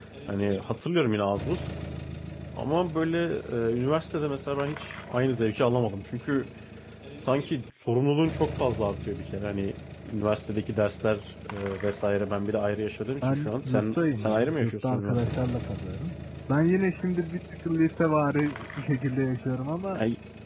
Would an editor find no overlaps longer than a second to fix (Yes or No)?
No